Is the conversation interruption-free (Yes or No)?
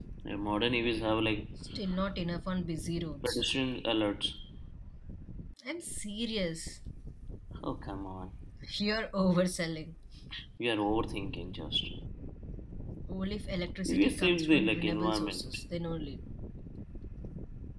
No